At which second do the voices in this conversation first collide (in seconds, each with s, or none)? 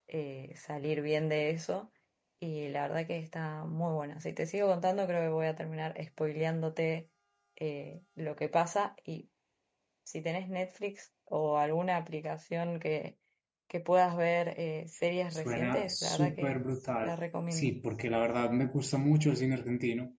15.3 s